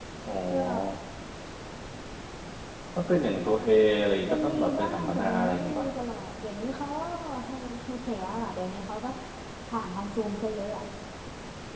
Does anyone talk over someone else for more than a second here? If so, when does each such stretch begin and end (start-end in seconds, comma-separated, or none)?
4.3-5.9